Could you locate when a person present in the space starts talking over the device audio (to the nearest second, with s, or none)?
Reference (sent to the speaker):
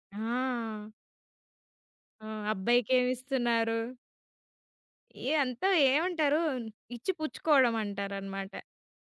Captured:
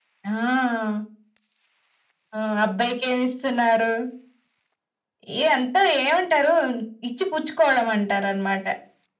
none